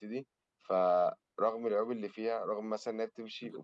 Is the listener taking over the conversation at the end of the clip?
Yes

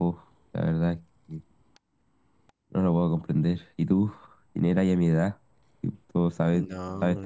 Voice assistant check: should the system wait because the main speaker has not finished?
No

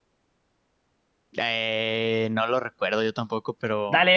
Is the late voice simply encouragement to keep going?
No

